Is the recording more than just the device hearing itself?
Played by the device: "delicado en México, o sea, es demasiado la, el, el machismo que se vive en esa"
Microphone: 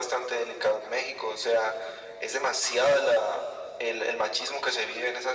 No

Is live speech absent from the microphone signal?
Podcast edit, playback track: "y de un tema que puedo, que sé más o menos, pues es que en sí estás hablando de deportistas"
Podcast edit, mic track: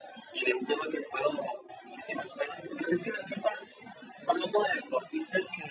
Yes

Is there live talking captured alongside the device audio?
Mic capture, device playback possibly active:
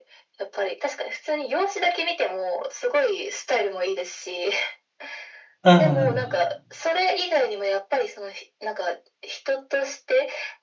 Yes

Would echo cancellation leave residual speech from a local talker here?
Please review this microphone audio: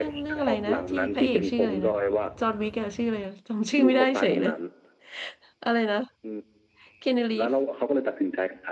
Yes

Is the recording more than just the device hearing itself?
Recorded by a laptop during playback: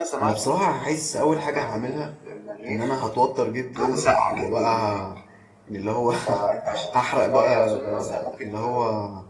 Yes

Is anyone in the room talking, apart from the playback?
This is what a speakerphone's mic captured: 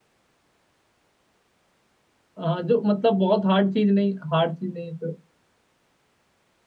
Yes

